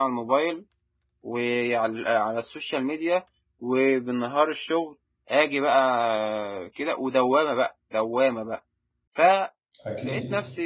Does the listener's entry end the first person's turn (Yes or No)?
No